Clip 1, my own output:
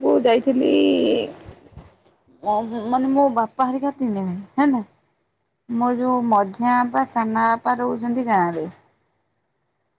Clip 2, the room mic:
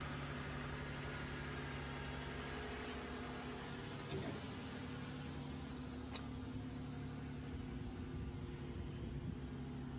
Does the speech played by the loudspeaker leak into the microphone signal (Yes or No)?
No